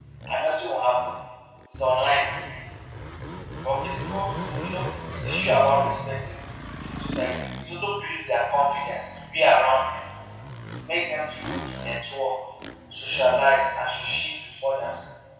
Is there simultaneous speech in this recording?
No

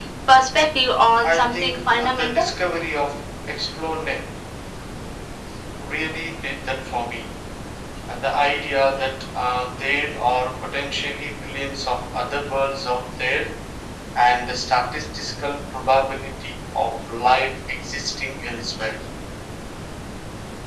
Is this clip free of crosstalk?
No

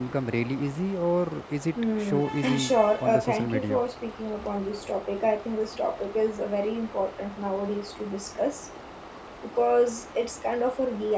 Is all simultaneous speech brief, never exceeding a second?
No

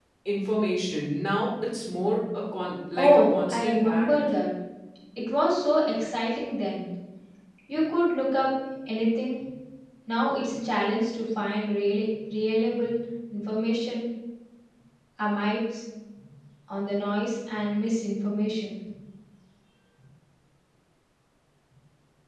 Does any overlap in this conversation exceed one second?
Yes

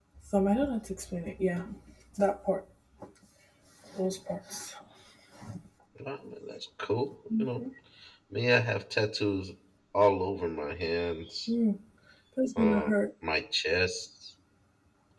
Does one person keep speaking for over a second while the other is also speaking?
No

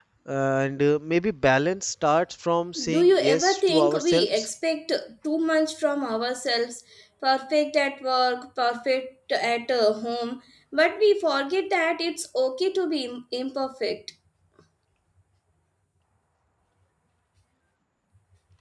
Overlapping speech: Yes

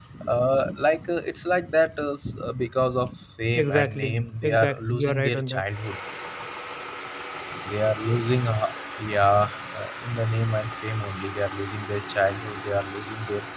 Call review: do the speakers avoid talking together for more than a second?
No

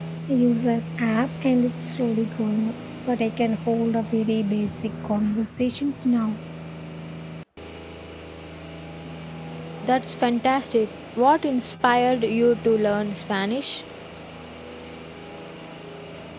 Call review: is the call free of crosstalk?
Yes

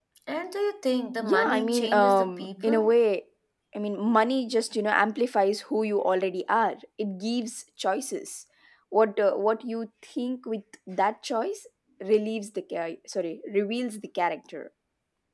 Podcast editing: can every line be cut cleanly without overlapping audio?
No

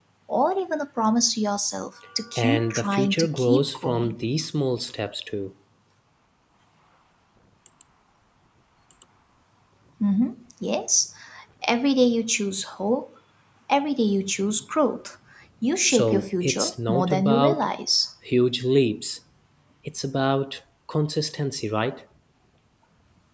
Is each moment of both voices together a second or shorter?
No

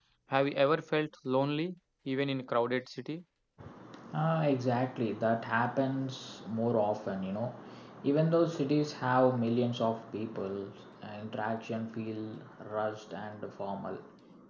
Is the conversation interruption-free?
Yes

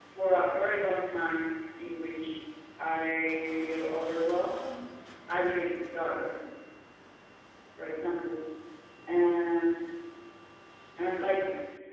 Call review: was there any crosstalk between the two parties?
No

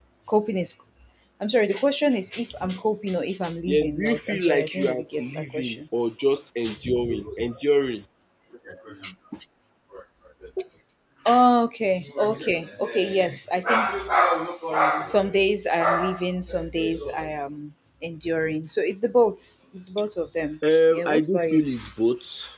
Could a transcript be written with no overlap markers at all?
No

